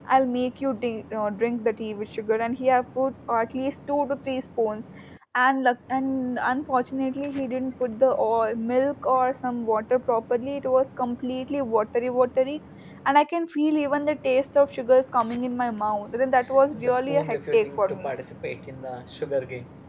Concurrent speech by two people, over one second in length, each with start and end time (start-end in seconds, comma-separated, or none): 16.7-18.1